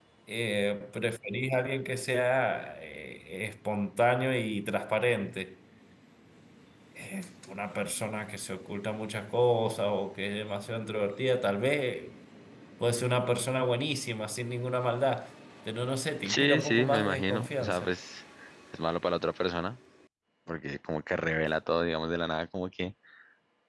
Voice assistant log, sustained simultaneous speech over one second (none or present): present